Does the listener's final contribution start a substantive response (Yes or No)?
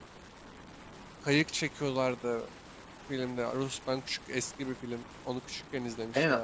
Yes